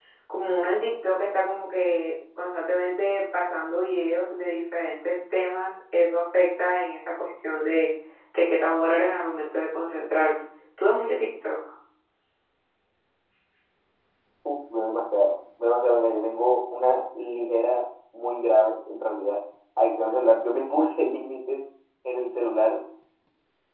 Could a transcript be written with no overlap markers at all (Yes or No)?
Yes